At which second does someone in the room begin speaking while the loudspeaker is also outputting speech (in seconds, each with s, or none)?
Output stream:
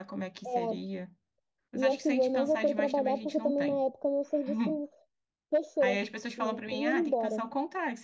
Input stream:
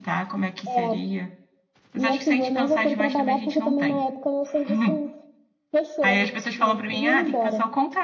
none